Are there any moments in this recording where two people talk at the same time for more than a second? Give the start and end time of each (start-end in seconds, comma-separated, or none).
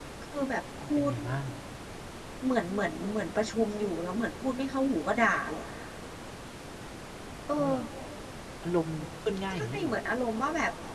none